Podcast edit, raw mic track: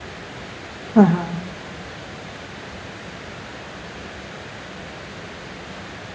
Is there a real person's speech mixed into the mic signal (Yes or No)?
Yes